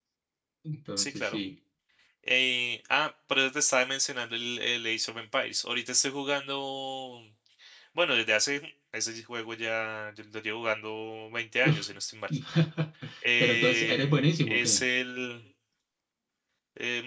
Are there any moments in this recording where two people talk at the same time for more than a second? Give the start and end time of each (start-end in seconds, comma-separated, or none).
13.4-14.8